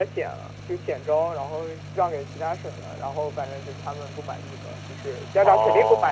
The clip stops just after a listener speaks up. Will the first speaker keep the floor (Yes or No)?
No